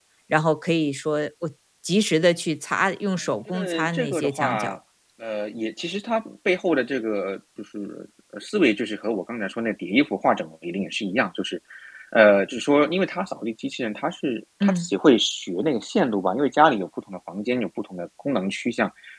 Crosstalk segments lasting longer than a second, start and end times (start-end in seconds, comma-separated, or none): 3.5-4.8